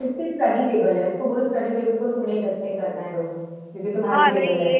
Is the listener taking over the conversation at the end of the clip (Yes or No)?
Yes